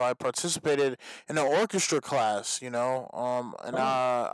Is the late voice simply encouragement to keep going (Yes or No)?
Yes